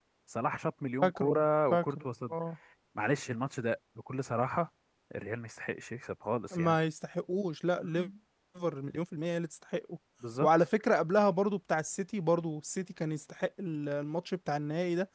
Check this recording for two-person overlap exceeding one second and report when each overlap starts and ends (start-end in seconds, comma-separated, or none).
1.0-2.3